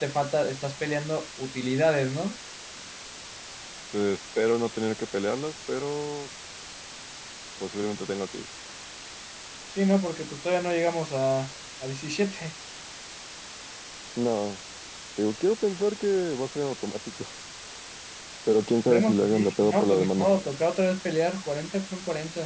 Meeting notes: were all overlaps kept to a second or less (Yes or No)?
No